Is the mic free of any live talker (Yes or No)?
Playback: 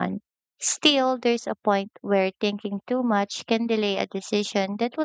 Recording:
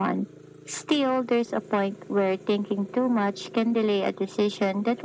Yes